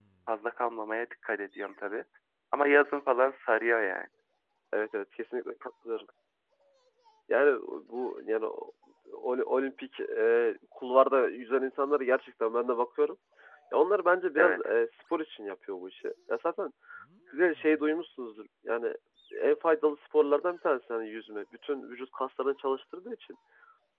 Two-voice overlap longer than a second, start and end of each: none

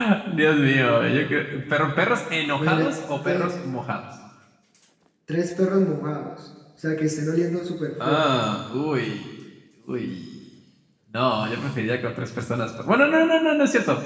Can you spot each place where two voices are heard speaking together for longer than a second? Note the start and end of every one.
none

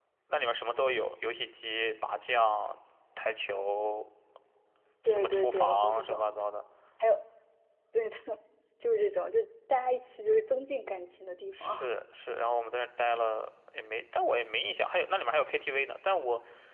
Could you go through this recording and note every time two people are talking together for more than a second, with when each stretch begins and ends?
5.0-6.3

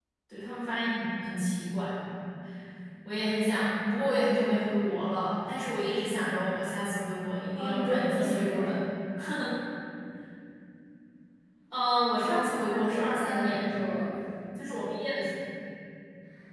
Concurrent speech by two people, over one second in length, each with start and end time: 7.6-8.8, 12.2-13.7

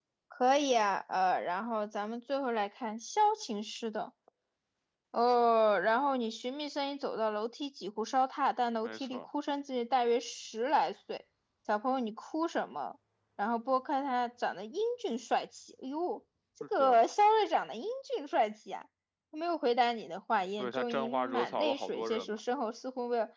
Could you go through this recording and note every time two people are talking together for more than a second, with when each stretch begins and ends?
20.6-22.4

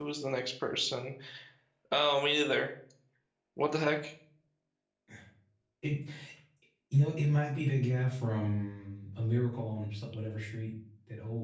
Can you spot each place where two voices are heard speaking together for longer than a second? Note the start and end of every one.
none

